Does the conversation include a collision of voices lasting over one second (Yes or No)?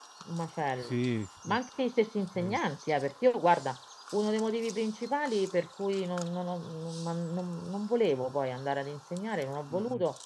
No